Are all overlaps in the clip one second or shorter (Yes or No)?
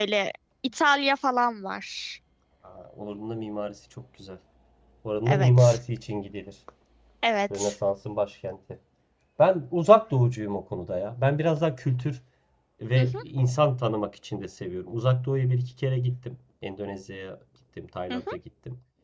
Yes